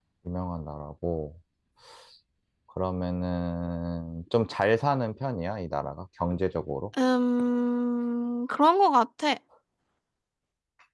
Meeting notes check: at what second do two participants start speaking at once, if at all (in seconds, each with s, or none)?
none